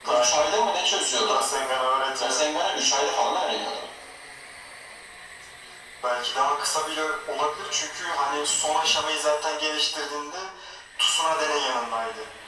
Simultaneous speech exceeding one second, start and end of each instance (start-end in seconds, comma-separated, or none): none